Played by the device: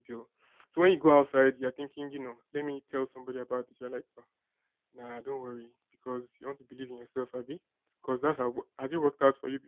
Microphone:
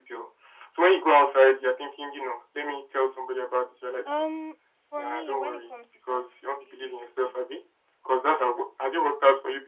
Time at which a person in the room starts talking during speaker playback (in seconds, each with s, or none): 4.0 s